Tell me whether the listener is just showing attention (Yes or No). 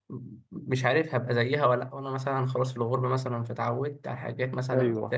Yes